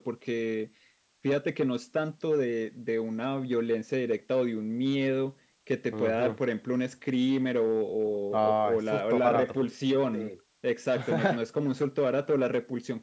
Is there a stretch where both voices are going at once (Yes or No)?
Yes